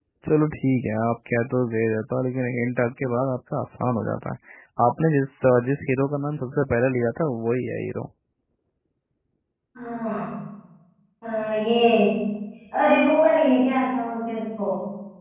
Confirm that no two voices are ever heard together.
Yes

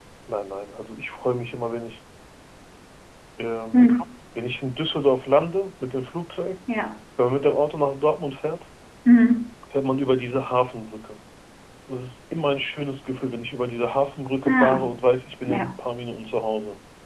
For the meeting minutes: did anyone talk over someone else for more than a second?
No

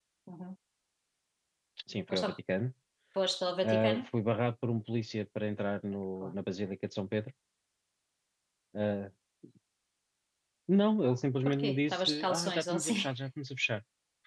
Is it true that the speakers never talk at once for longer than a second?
No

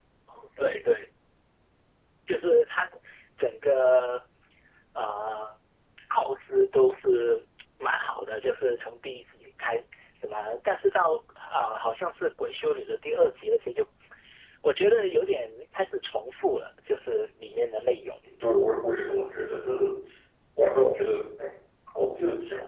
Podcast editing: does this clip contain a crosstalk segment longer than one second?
No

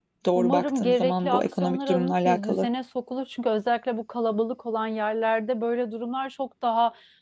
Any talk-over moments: Yes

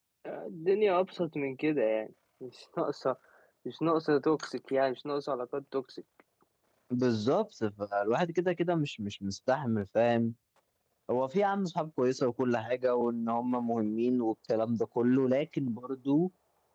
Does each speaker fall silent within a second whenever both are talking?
Yes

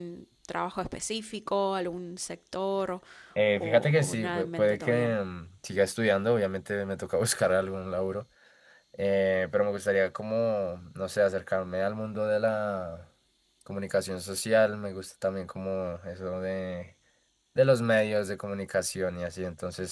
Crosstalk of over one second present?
Yes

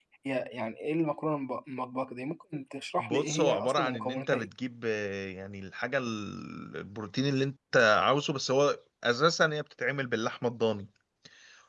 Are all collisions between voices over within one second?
No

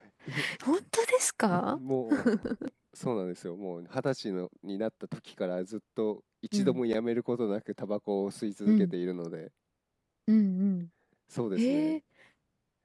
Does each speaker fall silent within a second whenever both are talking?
Yes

